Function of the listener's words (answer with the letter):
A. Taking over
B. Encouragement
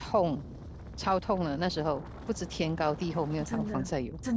A